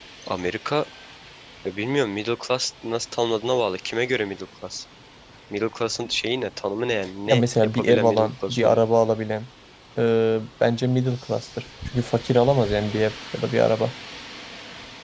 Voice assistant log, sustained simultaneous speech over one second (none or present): present